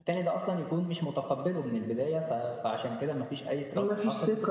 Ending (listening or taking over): taking over